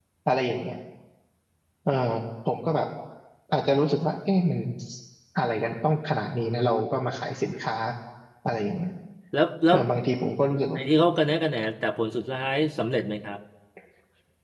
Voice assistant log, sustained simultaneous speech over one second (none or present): none